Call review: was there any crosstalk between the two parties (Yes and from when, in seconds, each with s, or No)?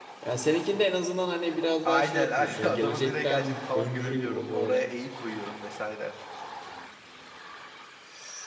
Yes, from 1.9 s